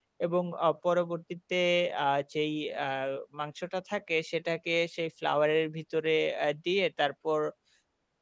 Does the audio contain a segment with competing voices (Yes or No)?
No